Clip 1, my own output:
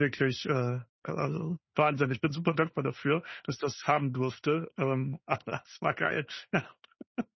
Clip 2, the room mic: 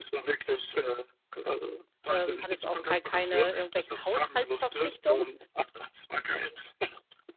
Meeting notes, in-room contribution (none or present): present